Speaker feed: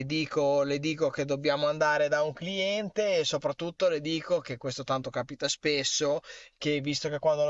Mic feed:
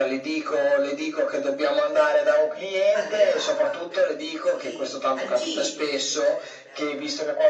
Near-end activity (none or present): present